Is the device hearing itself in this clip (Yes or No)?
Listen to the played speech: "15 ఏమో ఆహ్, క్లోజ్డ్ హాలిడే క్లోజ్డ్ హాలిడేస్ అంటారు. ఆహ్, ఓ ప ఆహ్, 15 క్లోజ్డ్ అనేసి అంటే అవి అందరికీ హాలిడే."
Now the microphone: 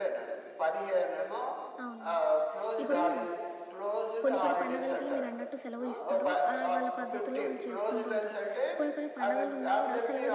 Yes